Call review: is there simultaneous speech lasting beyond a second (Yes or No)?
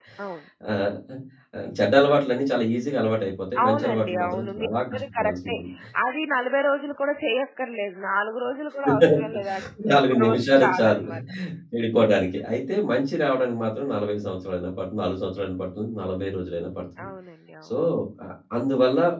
Yes